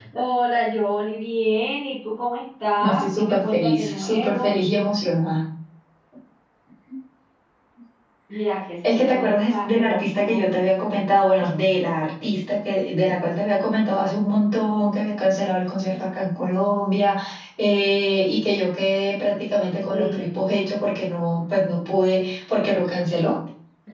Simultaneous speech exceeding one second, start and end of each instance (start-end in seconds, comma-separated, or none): 2.8-4.6, 8.8-10.6